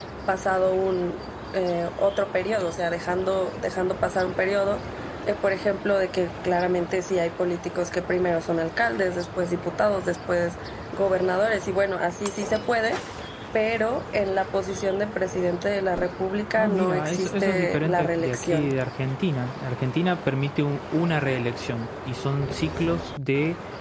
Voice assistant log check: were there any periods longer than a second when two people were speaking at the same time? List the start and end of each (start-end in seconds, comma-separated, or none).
16.6-18.7